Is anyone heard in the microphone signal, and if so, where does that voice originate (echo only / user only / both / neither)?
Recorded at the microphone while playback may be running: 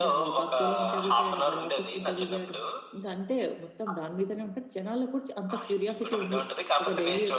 both